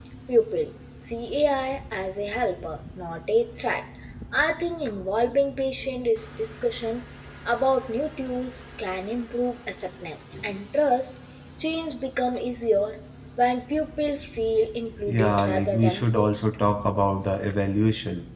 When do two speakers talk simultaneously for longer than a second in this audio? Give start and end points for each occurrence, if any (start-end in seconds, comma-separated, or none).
15.1-16.4